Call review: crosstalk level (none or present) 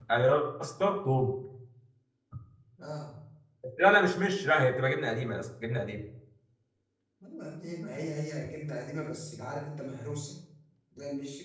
none